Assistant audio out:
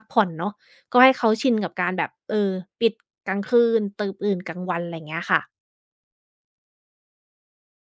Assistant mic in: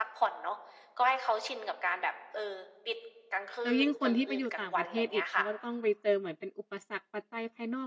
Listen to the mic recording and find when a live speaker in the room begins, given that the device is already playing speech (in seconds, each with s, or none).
3.6 s